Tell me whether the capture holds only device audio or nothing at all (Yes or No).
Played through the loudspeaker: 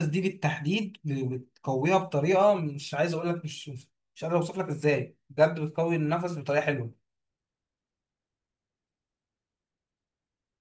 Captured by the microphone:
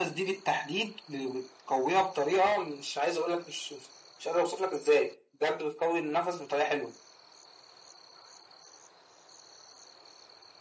Yes